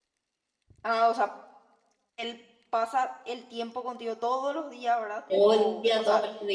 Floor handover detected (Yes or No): Yes